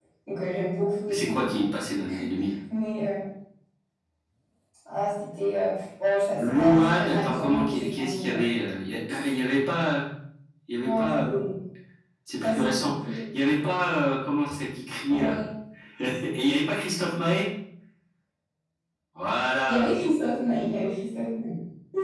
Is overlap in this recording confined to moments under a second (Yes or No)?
No